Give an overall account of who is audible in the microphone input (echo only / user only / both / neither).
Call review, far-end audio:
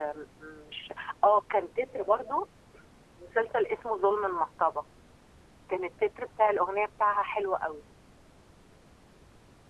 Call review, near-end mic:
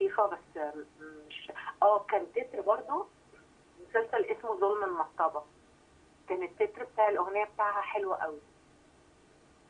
echo only